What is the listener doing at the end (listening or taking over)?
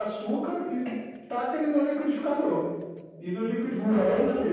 listening